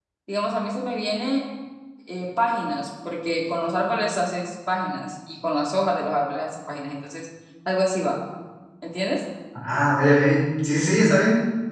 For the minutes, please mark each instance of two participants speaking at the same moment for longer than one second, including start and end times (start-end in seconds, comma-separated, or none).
none